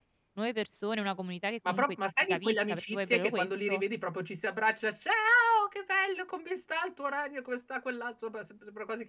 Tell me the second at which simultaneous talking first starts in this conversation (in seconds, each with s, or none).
1.6 s